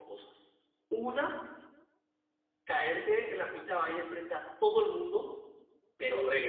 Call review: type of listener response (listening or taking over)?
listening